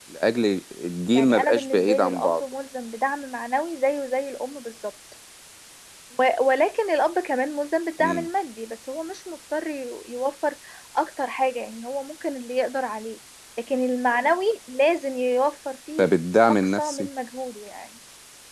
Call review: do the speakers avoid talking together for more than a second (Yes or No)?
No